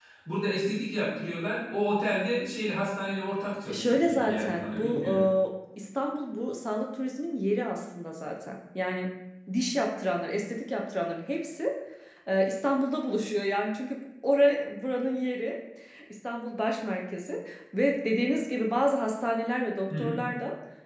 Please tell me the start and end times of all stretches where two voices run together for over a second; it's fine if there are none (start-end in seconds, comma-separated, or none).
3.7-5.0